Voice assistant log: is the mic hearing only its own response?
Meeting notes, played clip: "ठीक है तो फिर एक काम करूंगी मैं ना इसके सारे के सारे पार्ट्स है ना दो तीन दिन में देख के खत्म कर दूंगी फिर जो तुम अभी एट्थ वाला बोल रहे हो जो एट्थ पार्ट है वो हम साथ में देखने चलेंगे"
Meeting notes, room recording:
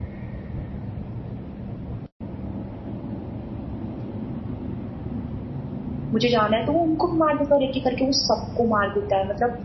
No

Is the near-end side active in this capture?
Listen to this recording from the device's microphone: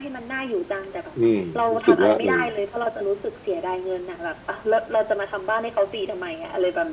Yes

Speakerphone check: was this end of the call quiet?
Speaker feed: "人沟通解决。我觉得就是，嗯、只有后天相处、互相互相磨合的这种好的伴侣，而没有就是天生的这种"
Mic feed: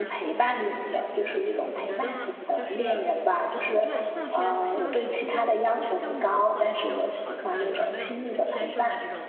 No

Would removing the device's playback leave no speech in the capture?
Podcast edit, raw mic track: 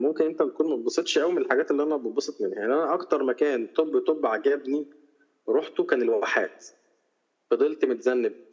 Yes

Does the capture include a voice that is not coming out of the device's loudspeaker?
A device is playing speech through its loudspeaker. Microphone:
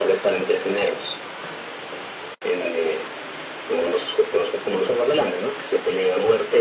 No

